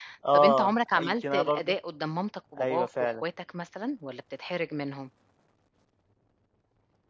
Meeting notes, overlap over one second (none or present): present